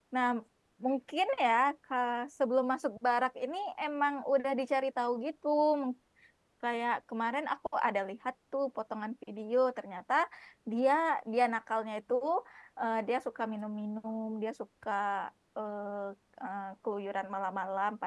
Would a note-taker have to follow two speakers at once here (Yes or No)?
No